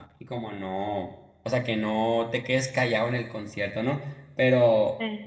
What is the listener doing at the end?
listening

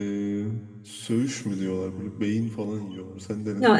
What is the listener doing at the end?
taking over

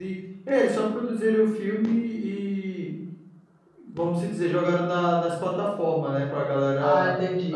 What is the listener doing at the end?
taking over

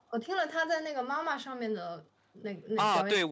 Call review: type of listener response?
taking over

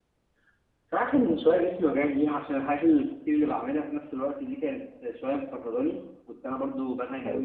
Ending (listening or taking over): listening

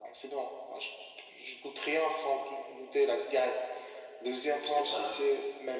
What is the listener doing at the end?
listening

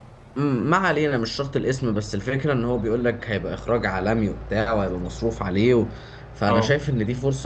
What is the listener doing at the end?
listening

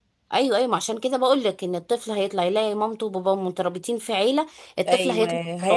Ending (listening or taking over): taking over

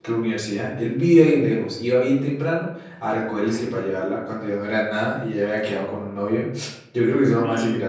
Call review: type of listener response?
taking over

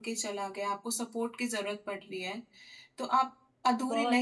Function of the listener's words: listening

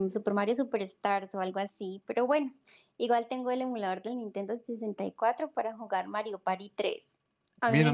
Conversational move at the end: taking over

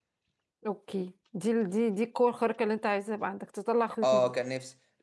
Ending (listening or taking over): taking over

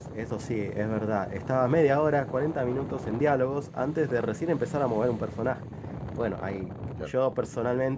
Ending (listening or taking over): listening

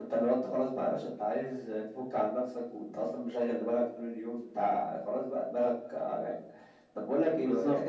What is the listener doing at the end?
listening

